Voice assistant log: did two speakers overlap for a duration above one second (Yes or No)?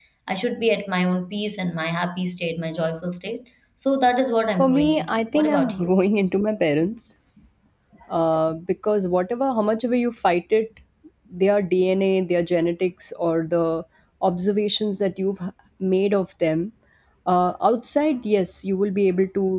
Yes